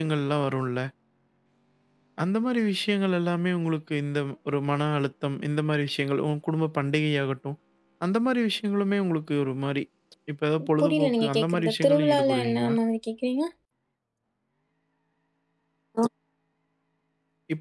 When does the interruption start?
11 s

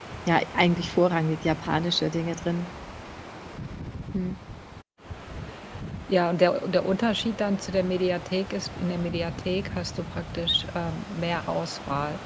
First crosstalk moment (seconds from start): none

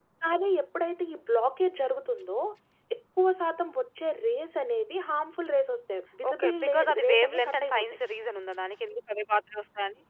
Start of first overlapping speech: 6 s

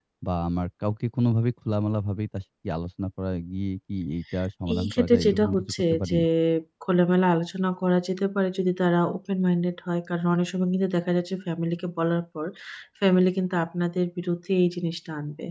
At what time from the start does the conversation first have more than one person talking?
5 s

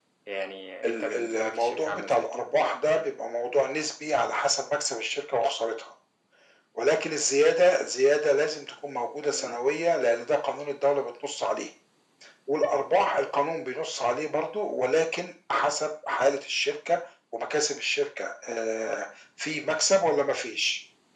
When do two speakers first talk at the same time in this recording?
1 s

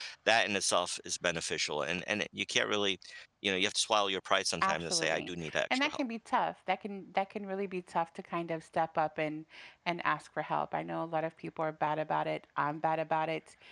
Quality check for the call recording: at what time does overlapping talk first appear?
5 s

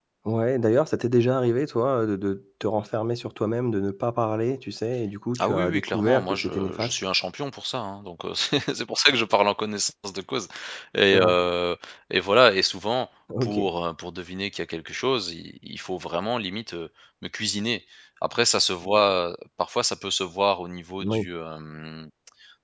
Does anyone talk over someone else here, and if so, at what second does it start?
5 s

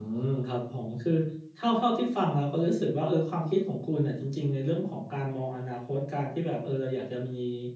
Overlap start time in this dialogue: none

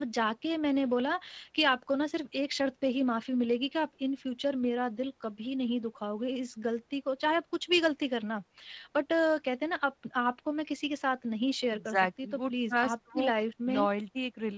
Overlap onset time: 12 s

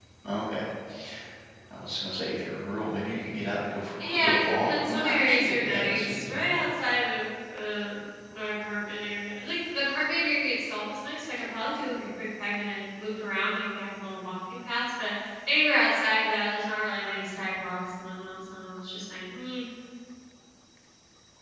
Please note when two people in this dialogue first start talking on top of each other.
4 s

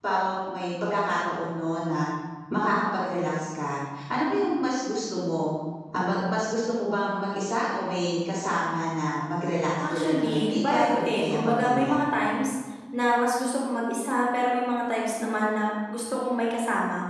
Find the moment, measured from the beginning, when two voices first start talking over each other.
10 s

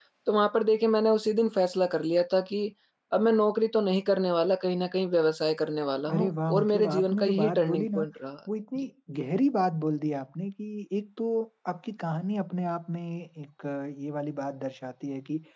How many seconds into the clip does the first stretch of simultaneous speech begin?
6 s

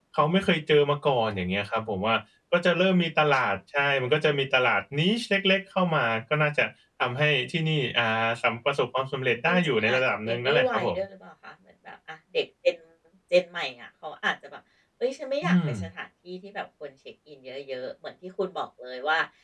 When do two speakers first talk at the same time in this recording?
9 s

